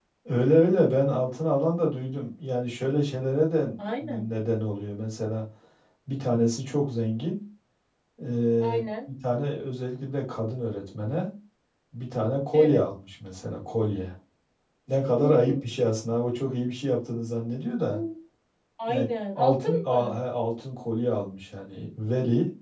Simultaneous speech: Yes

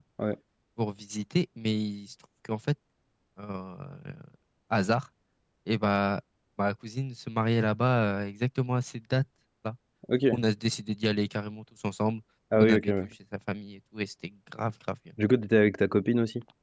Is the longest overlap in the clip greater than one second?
No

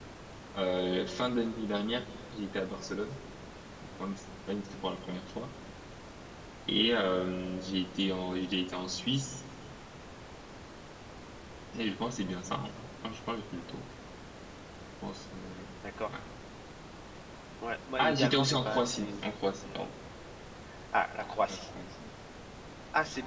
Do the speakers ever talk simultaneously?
Yes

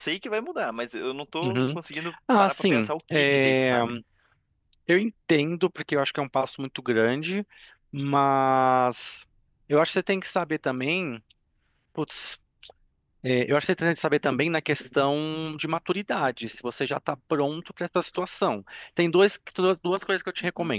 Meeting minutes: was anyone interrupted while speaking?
Yes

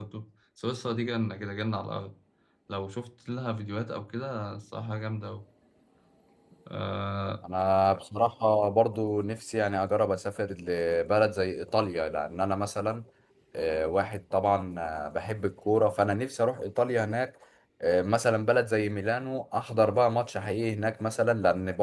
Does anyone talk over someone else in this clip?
No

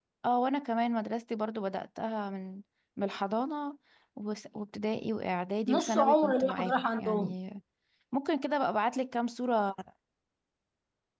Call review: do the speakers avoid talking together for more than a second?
No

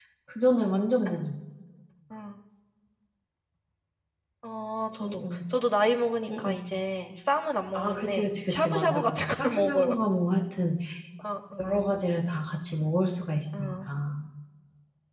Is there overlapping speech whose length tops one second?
Yes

